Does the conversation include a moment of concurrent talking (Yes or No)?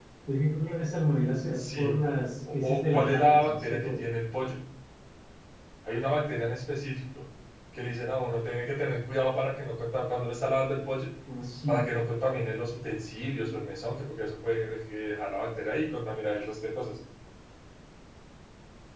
Yes